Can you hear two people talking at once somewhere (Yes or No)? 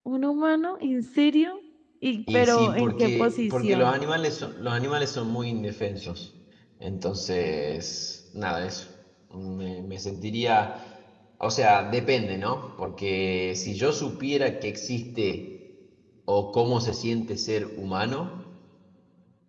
Yes